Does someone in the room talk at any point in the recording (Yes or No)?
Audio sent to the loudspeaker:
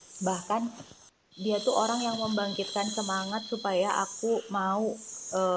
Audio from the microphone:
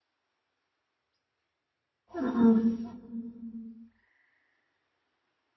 Yes